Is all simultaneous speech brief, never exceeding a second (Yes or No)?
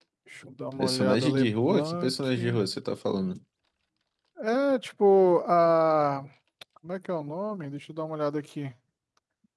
No